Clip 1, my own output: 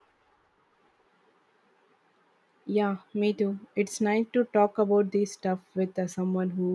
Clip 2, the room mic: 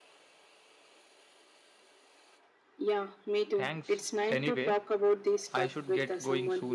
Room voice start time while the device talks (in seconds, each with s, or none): 3.5 s